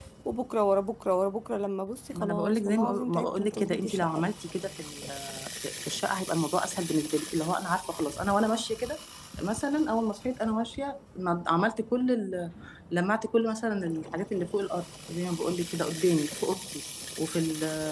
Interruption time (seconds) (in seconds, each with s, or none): 2.1 s